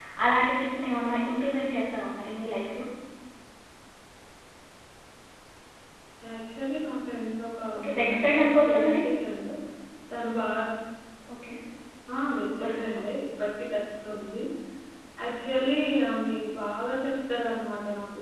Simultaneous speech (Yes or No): Yes